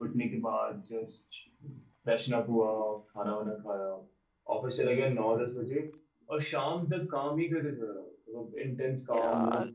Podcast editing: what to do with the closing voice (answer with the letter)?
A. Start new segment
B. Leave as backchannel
A